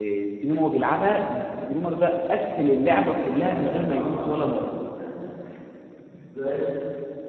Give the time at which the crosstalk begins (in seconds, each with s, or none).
3.0 s